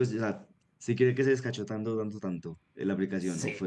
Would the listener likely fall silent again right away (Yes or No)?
No